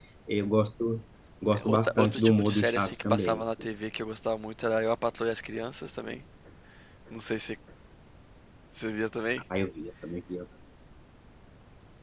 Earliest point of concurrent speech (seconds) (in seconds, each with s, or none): 1.6 s